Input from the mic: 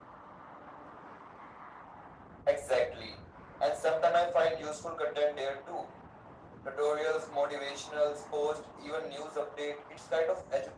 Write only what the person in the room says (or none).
none